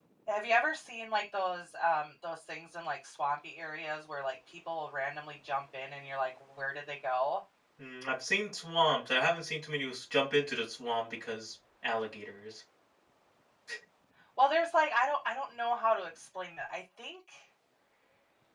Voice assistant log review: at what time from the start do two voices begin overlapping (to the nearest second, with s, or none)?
none